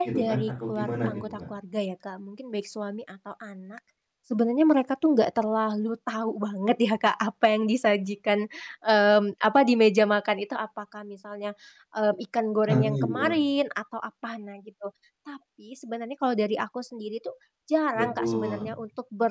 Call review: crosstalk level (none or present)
present